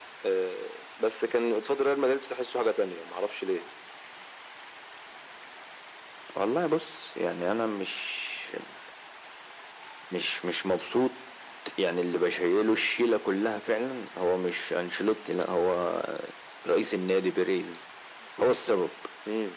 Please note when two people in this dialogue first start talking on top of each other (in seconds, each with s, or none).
none